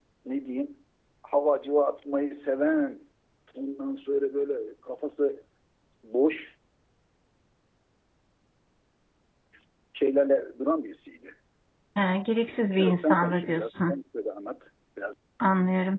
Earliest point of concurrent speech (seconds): 13 s

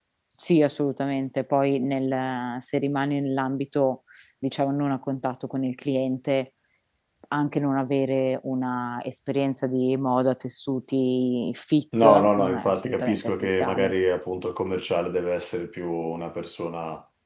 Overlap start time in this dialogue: 12 s

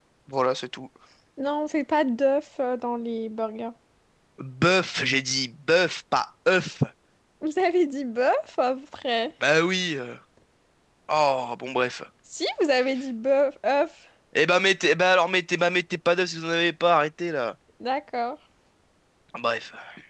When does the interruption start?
none

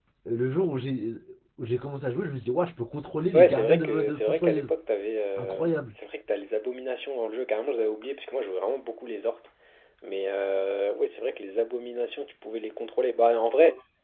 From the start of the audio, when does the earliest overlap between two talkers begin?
3 s

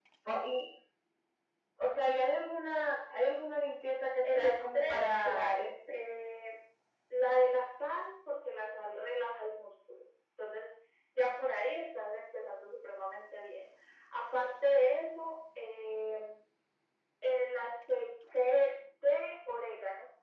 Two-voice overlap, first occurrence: 4 s

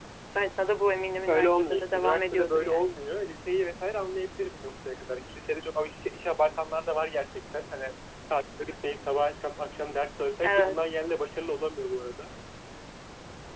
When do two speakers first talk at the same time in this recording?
1 s

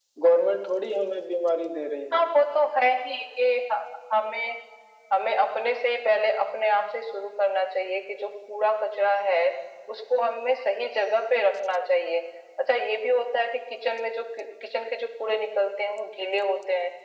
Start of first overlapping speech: none

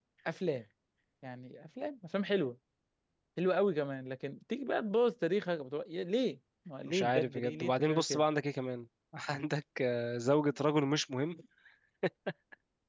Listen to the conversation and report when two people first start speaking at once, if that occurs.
7 s

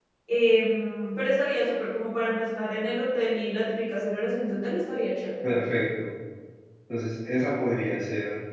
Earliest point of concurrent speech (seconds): none

